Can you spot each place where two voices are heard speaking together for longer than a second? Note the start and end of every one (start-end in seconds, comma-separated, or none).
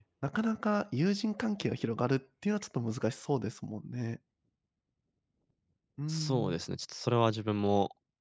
none